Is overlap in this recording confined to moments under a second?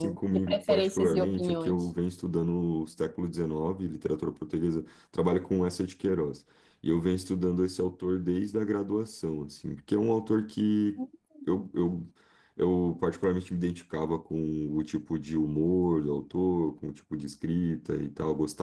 No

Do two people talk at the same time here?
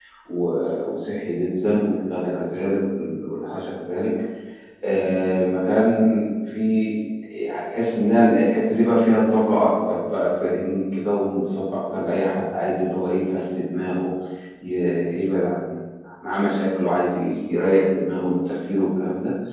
No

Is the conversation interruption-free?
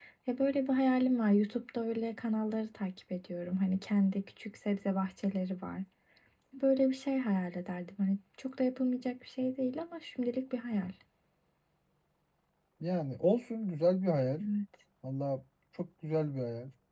Yes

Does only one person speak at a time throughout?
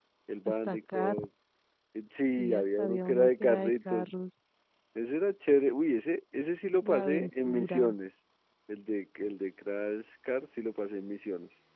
No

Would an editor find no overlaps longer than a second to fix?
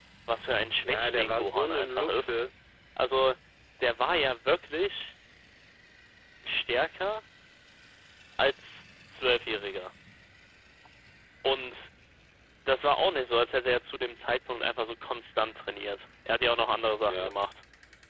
No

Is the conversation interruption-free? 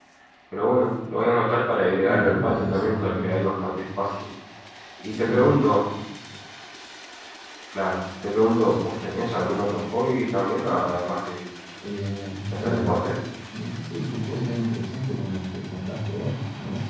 No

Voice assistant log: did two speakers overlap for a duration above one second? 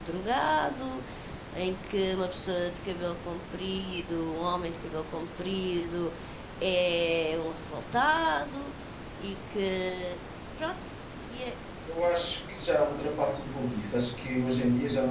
No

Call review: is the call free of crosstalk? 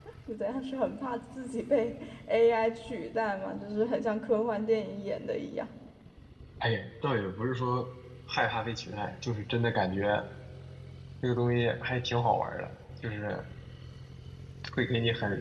Yes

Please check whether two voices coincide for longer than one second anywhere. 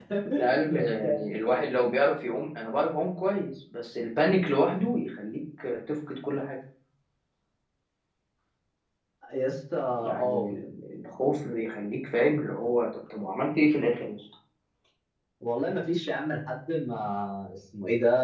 No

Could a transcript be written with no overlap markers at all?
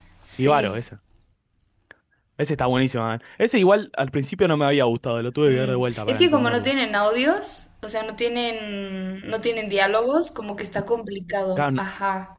No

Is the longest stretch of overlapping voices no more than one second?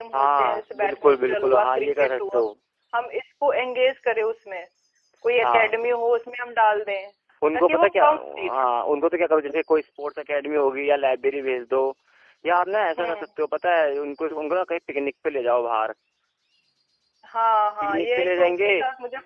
No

